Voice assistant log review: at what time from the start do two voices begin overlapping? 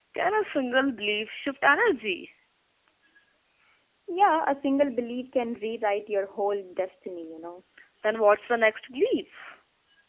none

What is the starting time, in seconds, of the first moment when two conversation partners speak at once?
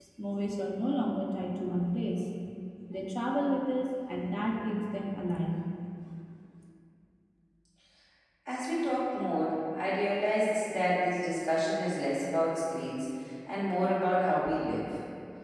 none

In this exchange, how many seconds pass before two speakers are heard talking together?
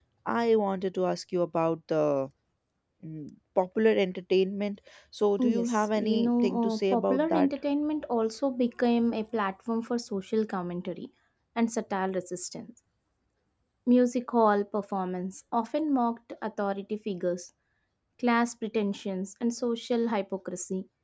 5.4 s

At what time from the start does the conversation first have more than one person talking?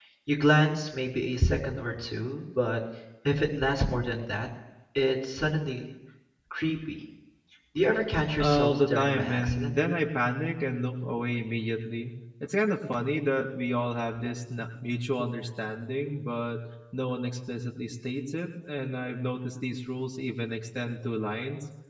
8.4 s

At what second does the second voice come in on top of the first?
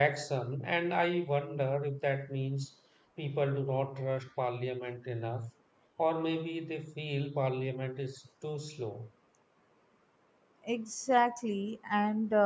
none

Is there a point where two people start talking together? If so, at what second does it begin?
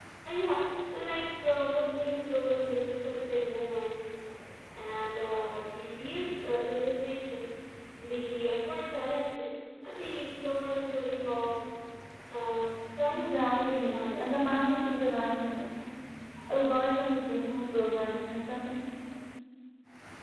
13.1 s

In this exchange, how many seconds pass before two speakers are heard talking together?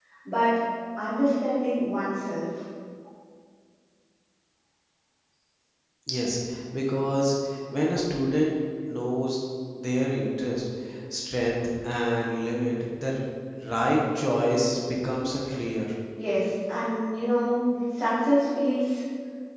none

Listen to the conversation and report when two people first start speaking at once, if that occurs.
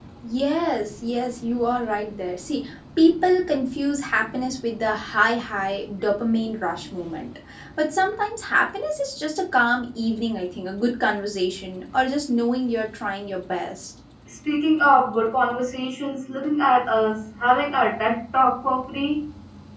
none

